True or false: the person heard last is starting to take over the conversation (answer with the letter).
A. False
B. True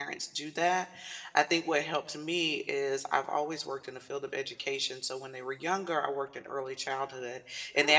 A